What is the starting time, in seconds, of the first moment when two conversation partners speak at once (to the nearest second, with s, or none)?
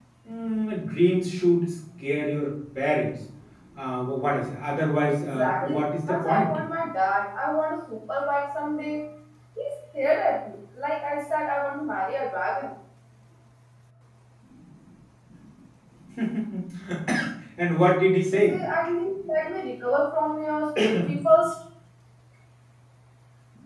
5 s